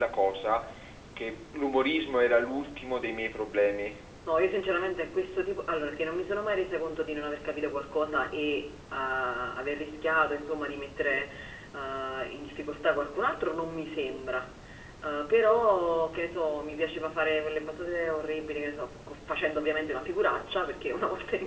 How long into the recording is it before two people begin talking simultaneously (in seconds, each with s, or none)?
none